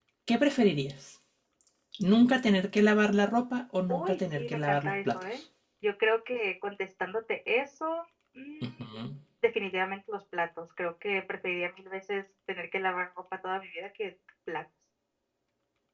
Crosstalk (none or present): present